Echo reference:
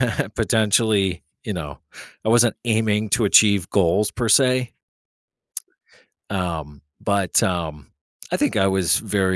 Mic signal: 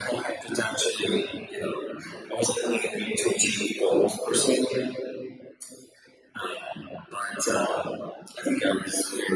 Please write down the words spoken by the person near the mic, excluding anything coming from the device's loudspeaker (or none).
none